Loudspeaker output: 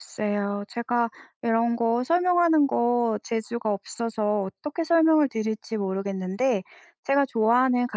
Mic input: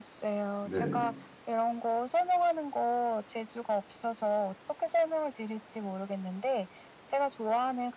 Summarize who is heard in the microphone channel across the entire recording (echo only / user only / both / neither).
both